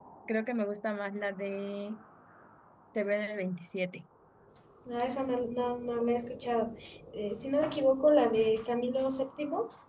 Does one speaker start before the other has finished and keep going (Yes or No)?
No